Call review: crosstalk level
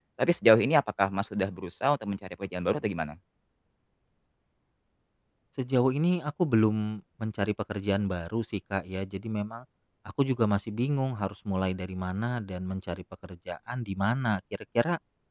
none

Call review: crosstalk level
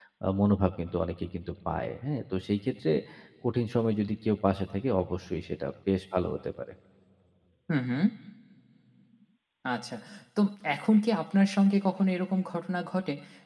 none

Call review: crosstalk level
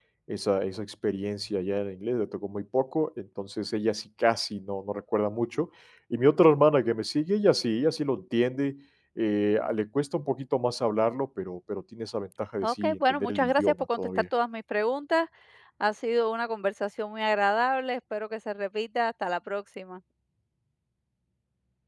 present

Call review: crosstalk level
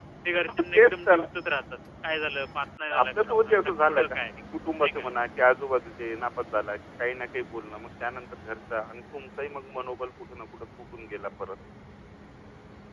present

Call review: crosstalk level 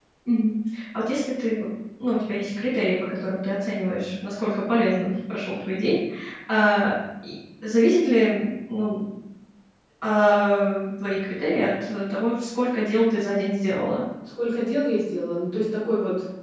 none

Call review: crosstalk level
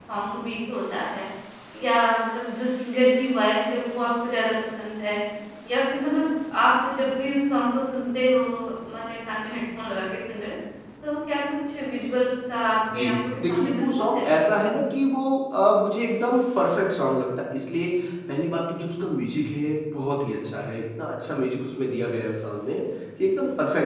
present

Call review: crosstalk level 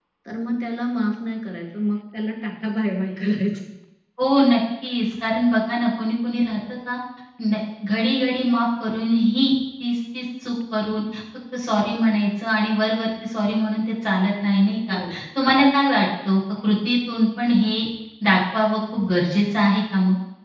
none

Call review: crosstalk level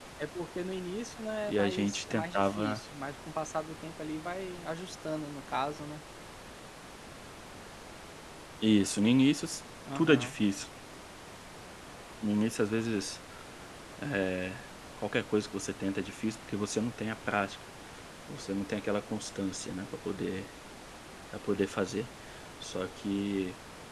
present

